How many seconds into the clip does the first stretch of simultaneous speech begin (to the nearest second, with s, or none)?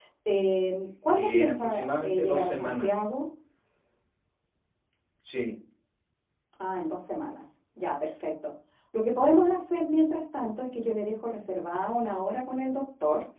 1 s